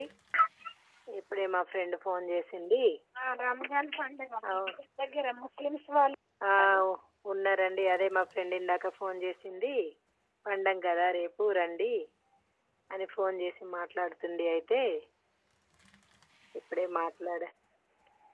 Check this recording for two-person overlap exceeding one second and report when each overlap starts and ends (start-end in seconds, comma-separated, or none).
none